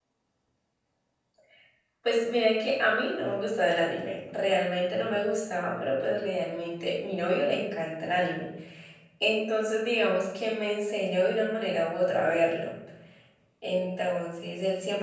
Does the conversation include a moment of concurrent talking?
No

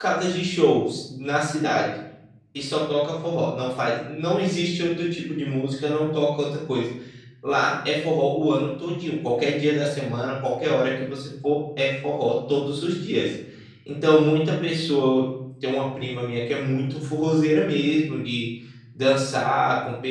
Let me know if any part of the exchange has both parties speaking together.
No

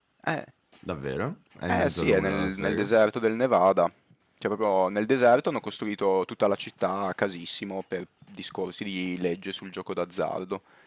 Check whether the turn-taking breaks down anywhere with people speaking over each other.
Yes, from 1.7 s

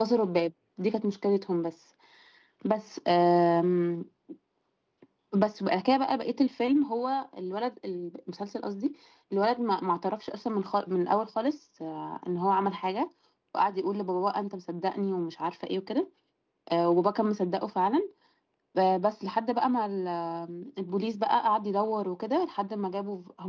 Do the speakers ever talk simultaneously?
No

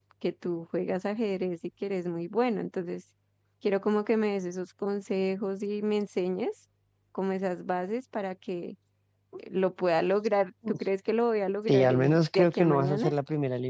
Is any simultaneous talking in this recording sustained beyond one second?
Yes, from 11.7 s

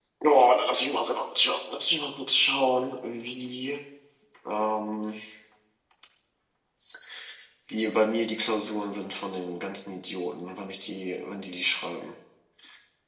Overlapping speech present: No

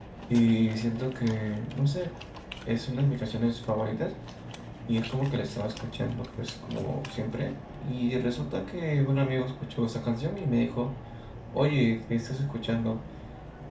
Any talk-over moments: No

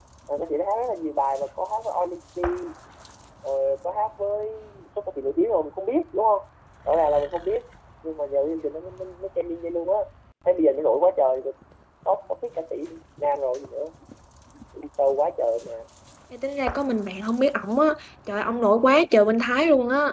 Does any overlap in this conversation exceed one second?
No

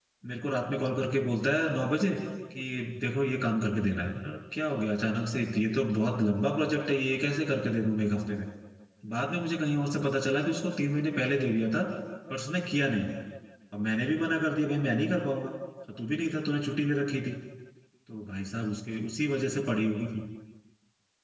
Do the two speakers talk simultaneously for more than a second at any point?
No

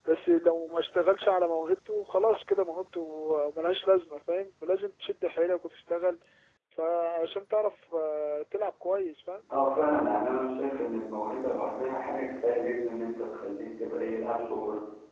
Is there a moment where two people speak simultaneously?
No

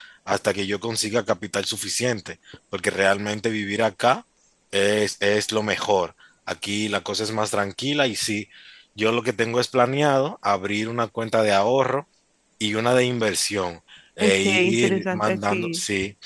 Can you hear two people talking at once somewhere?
Yes, from 14.2 s

